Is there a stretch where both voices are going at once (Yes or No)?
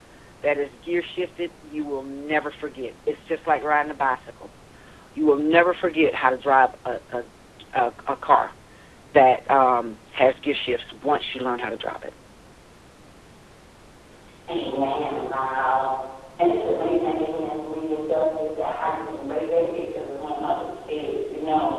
No